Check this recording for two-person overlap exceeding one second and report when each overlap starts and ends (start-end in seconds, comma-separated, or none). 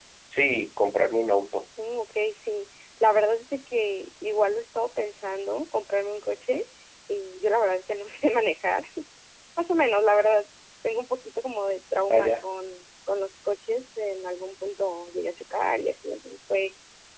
none